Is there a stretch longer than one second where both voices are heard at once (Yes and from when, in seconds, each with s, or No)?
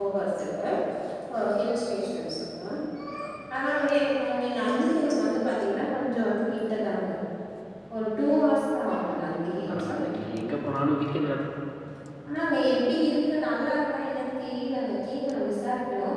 No